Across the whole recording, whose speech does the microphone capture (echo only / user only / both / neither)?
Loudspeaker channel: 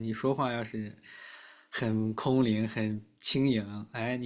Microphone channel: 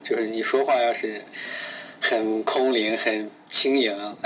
echo only